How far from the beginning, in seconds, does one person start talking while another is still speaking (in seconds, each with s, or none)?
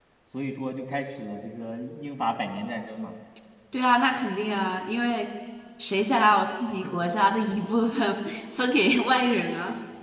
none